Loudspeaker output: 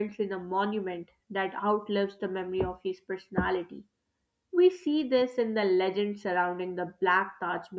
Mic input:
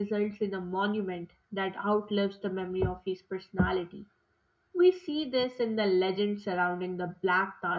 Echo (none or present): present